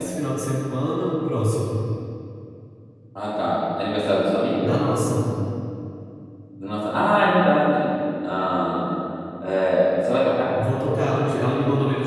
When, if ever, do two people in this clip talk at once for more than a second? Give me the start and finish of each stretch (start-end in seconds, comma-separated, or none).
none